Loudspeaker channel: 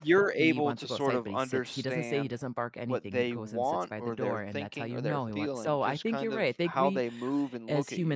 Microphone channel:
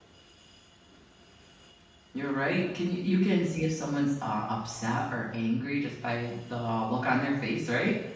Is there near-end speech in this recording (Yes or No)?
Yes